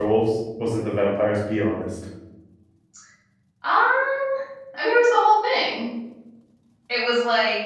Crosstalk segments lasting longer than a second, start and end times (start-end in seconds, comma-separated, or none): none